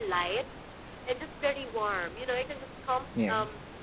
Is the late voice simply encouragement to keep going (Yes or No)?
Yes